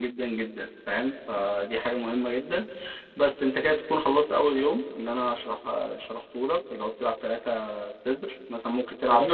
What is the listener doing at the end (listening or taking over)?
taking over